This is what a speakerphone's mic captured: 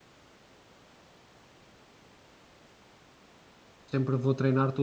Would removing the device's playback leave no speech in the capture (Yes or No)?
No